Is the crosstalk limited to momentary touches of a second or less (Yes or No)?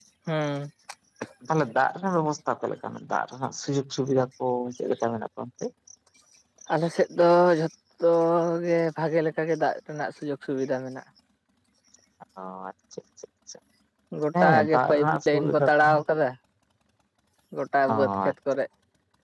No